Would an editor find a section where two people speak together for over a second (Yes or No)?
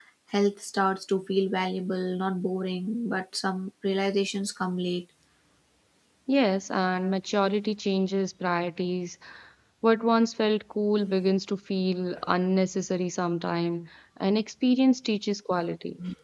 No